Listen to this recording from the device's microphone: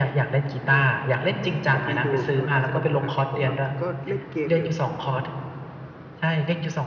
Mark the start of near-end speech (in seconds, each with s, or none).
0.7 s